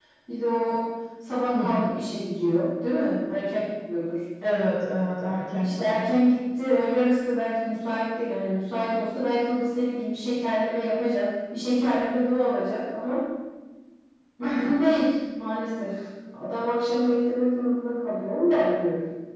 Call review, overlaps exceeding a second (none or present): none